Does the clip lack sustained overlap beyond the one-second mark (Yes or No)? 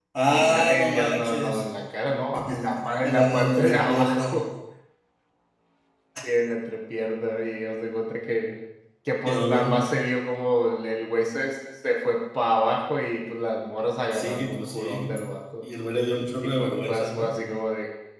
No